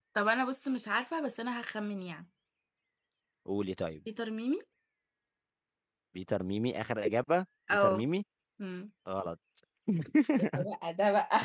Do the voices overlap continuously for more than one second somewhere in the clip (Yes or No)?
No